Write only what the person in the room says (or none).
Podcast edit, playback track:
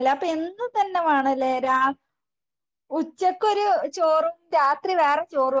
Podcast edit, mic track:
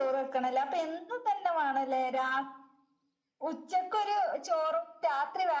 none